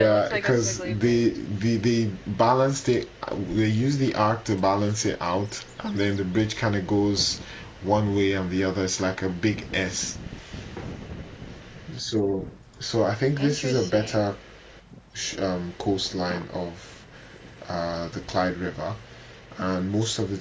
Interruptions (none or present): present